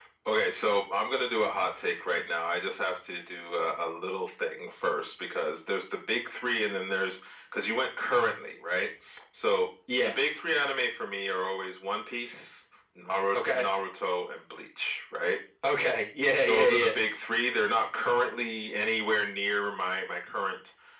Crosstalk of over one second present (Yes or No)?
No